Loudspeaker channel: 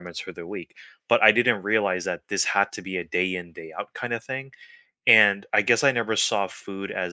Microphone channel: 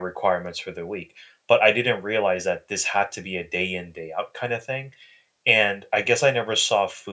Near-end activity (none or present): none